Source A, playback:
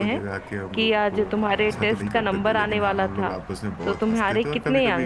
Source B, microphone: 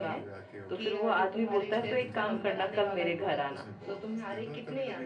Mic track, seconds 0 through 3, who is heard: both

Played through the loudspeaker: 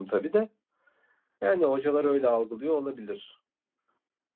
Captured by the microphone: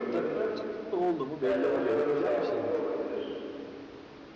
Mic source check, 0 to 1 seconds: both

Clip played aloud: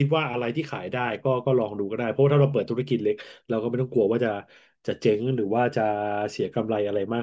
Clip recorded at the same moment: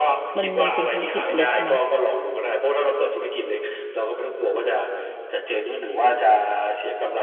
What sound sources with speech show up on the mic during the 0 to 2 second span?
both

